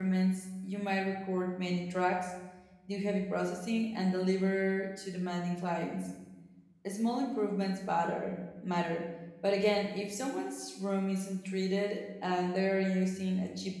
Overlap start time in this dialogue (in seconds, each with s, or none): none